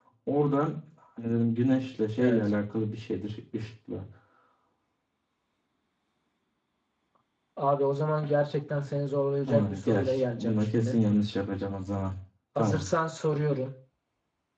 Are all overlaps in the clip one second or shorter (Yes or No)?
No